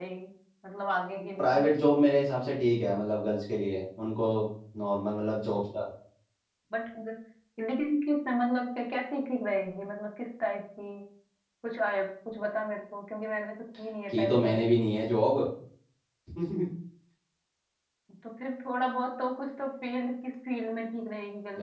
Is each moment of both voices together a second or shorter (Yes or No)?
Yes